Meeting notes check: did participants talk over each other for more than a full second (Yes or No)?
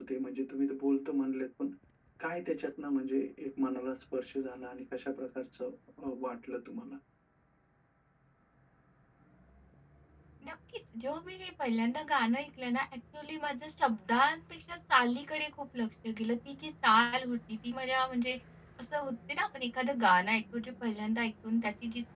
No